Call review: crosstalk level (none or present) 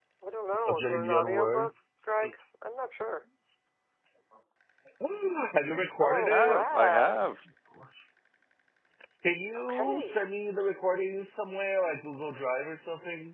present